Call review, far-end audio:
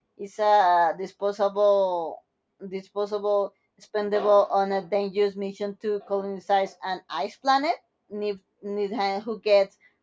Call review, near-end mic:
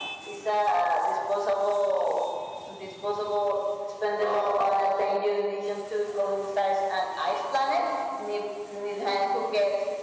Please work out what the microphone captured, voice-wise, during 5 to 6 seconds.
echo only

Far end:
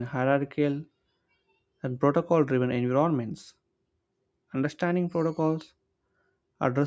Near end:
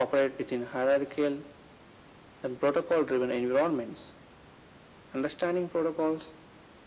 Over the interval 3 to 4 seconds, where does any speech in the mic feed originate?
echo only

